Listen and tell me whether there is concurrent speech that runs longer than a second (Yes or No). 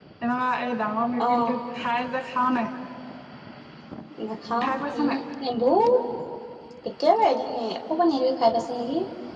No